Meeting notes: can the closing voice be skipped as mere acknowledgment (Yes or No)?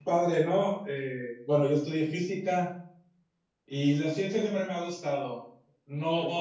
Yes